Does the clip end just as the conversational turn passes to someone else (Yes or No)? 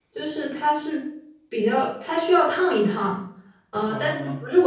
No